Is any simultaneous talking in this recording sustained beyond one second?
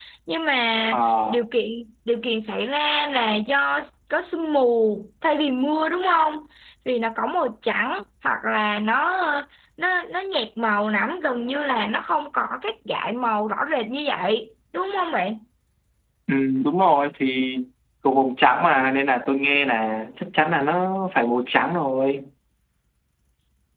No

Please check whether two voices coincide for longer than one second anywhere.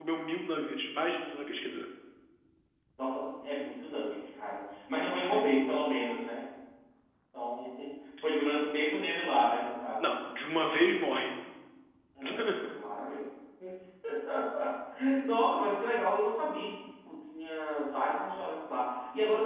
No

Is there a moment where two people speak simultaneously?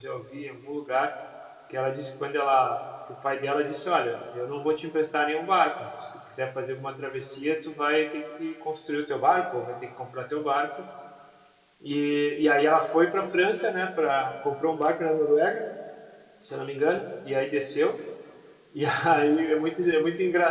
No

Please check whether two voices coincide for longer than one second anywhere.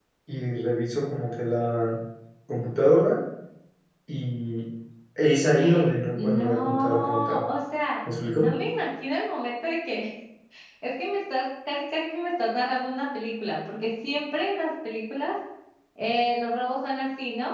Yes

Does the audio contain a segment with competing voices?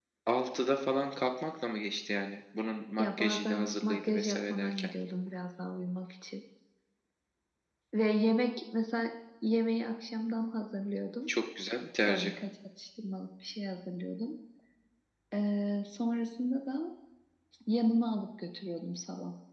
Yes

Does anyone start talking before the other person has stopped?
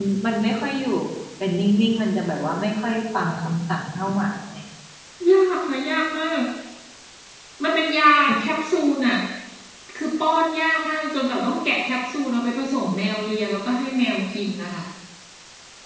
No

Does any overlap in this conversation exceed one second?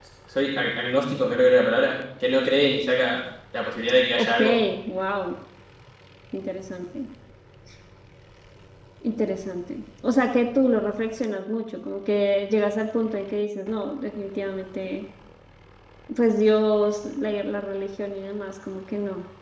No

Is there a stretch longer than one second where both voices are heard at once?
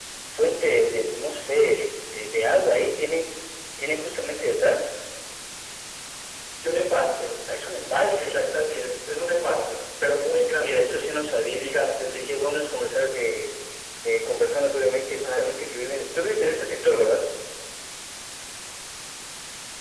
No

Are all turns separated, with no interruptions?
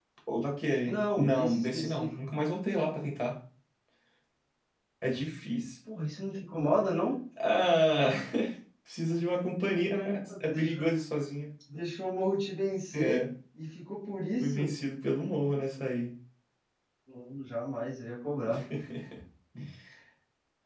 No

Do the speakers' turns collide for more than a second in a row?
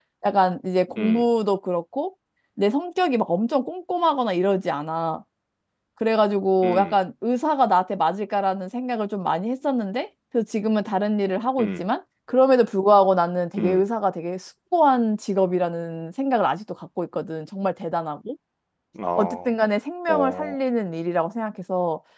No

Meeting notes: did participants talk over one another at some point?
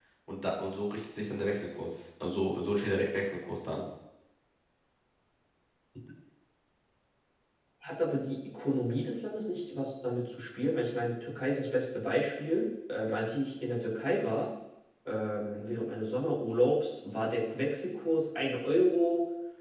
No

